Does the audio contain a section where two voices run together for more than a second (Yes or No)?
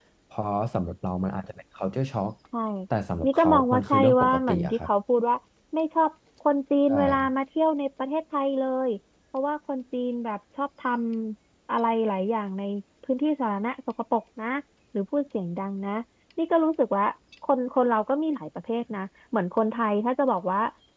Yes